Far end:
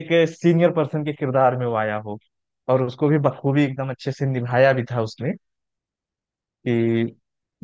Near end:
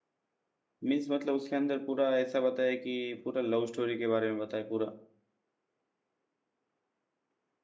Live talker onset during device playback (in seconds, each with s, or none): 0.8 s